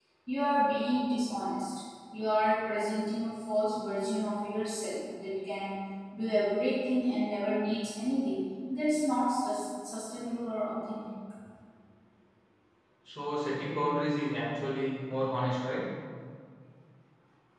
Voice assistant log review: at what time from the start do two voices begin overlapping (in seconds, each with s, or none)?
none